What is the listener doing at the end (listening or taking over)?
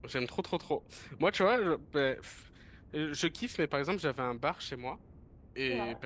listening